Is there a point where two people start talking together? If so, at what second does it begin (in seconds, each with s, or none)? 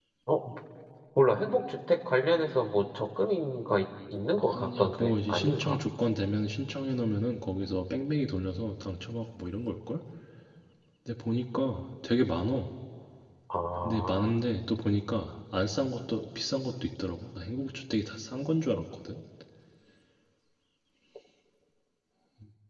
4.5 s